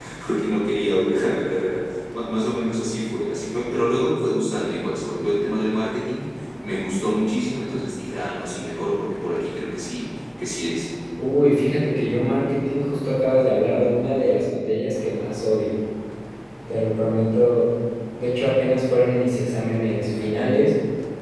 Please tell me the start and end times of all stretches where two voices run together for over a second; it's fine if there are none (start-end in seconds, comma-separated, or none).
none